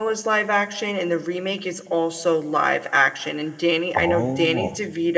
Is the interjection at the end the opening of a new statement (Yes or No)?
No